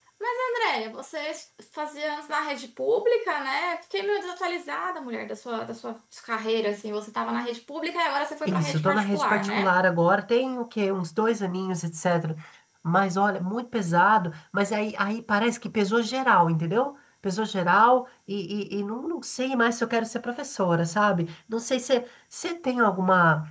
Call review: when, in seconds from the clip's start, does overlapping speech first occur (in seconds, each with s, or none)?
8.4 s